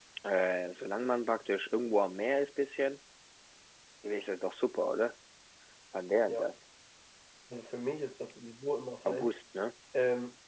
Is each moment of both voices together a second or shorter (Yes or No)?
Yes